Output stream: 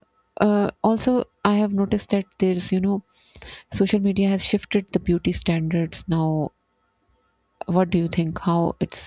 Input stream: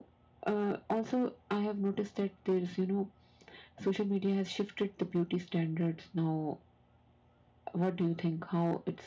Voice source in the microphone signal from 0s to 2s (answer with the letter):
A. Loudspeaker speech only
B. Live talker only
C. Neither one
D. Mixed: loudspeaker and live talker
A